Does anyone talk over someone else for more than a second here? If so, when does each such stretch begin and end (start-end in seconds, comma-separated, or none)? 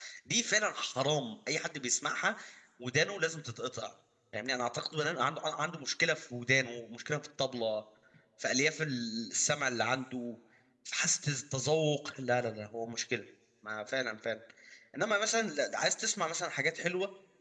none